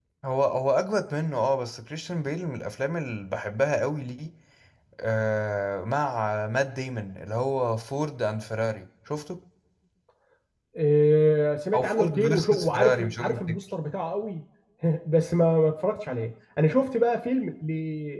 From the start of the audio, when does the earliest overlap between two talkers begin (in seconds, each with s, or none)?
11.7 s